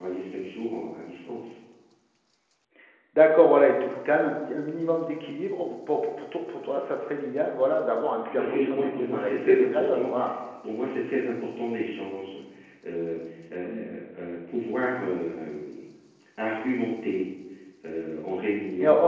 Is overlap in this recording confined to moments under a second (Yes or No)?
No